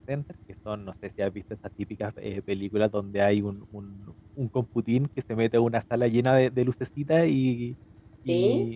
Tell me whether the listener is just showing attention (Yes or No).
Yes